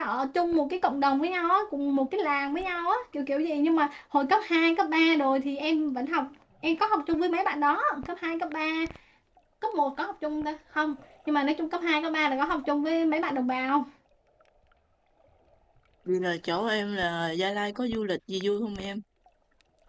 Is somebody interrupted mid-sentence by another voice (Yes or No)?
No